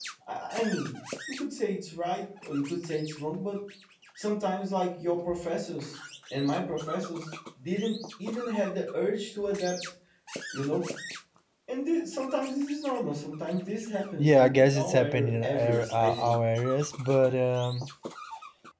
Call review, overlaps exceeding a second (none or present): present